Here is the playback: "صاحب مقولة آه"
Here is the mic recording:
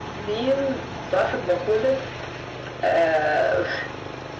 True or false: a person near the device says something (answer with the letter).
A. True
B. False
B